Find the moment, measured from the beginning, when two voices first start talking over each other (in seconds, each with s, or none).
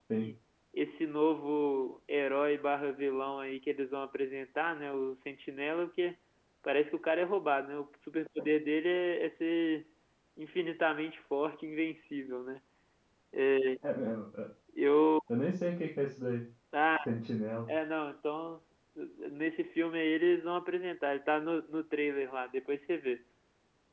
none